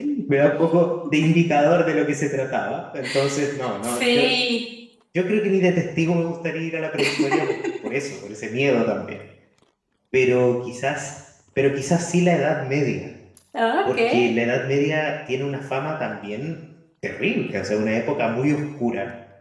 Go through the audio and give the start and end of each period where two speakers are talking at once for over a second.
none

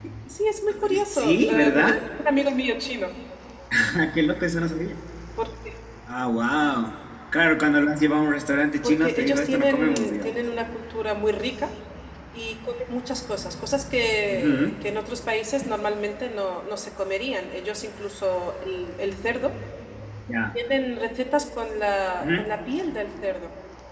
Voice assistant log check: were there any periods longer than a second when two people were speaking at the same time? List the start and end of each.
0.7-2.0, 8.8-10.4

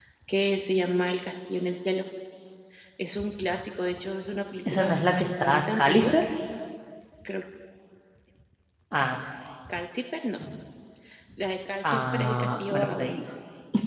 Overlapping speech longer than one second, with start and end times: 4.7-6.1, 11.8-13.2

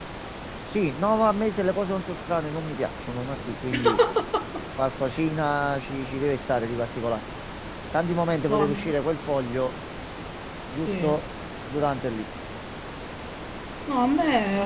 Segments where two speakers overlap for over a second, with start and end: none

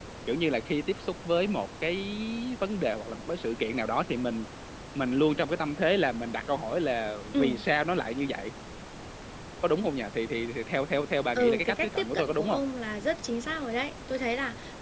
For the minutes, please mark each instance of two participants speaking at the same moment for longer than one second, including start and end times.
11.3-12.6

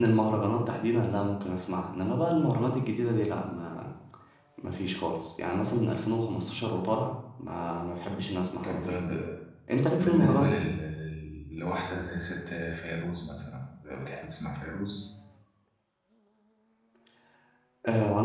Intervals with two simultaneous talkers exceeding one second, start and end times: none

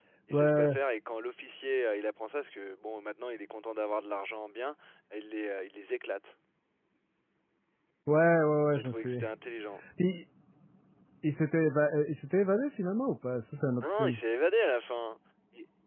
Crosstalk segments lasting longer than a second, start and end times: none

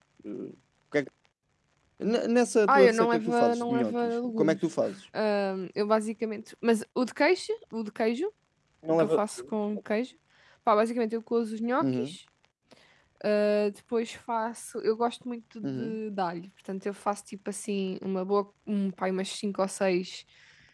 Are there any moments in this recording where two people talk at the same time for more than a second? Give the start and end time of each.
2.7-4.6

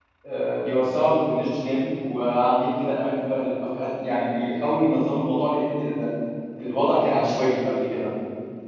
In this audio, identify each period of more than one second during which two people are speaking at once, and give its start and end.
none

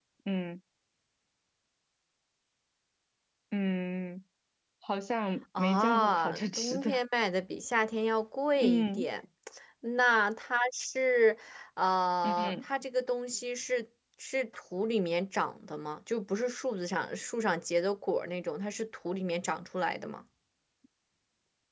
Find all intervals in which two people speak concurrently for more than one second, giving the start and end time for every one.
5.6-7.0

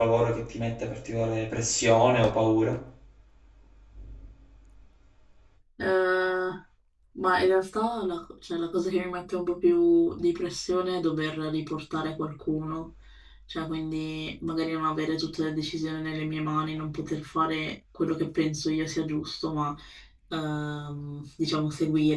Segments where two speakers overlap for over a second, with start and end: none

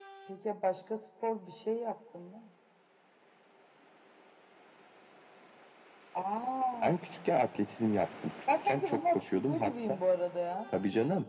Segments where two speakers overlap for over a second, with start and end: 8.5-9.9

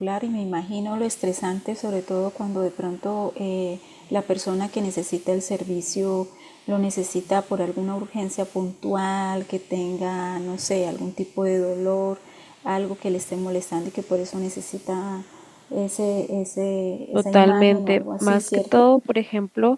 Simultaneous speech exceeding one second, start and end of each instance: 17.2-18.9

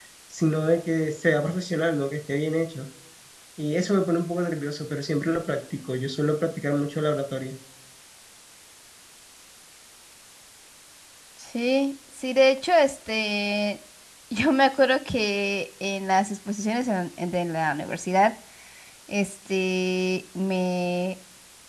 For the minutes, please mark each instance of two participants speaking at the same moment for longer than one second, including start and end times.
none

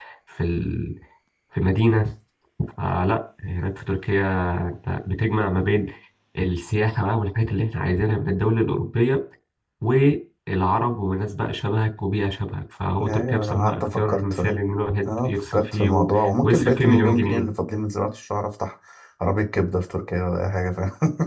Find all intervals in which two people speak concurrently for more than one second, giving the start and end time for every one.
13.0-14.4, 15.1-17.5

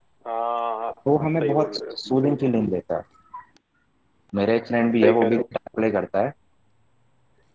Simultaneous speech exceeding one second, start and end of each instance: 1.1-2.5

